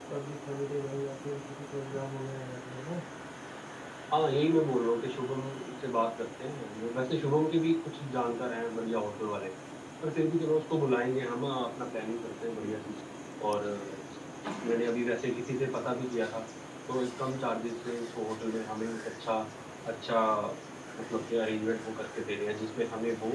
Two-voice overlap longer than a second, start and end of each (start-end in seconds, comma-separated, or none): none